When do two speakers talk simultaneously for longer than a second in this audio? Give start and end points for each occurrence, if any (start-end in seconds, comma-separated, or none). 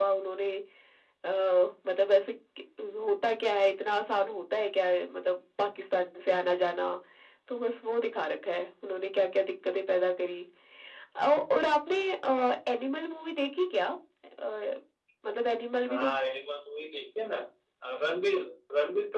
none